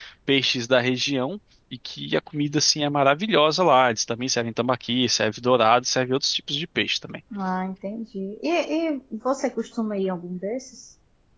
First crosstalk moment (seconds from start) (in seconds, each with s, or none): none